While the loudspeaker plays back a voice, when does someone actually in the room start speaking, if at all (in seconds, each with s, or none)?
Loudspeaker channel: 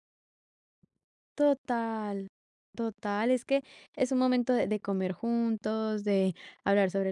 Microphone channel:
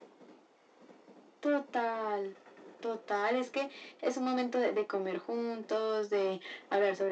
none